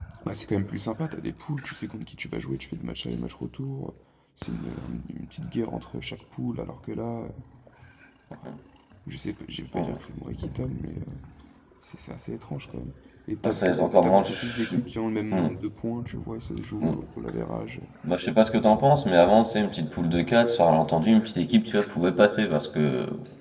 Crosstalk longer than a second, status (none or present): present